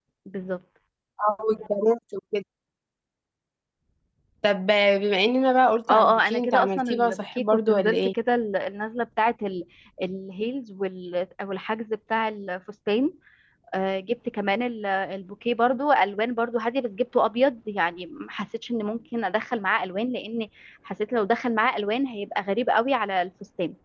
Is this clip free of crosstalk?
No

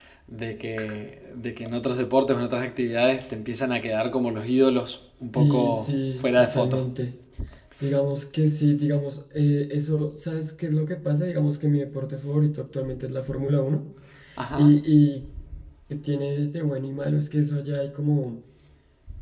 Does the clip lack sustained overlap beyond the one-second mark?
No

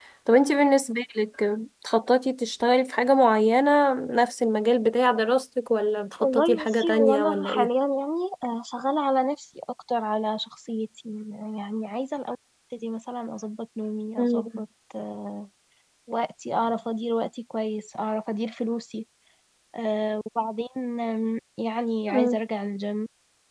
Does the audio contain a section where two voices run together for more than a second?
Yes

